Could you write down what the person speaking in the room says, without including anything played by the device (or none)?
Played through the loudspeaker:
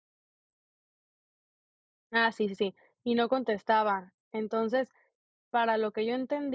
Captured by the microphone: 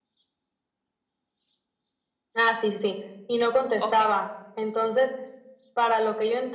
Okey.